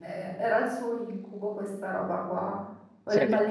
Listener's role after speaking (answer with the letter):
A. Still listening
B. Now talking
A